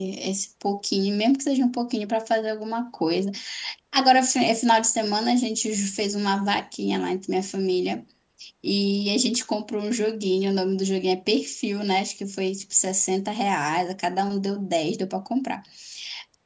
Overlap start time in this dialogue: none

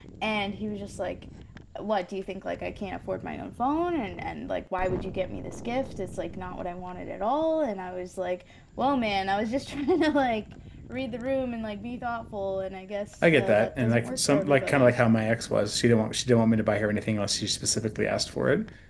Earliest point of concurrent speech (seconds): 13.2 s

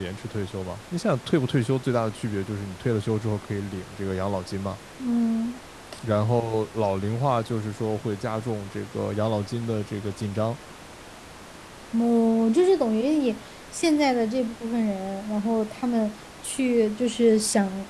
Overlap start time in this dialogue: none

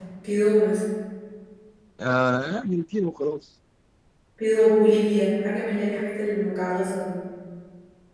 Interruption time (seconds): none

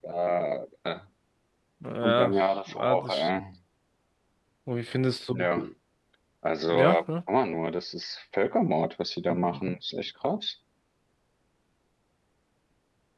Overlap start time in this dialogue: 2.0 s

